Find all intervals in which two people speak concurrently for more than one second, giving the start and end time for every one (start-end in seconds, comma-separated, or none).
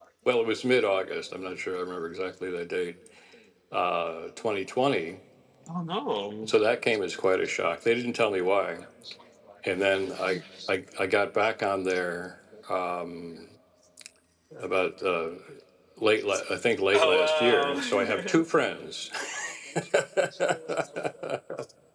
16.9-18.4